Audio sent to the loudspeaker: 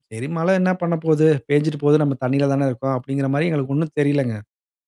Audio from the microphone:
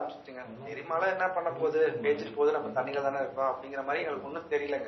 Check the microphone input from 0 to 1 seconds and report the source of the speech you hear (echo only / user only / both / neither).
both